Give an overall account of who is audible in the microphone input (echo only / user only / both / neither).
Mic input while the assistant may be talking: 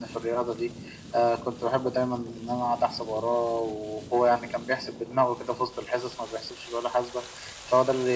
echo only